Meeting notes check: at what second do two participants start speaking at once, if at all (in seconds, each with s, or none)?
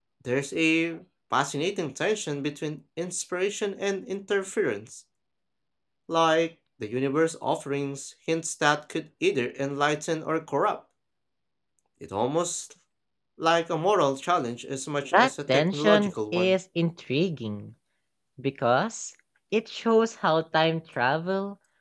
15.0 s